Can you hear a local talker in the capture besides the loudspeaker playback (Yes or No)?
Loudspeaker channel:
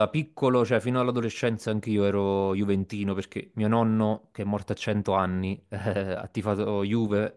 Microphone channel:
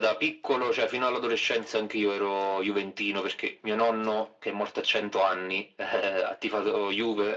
No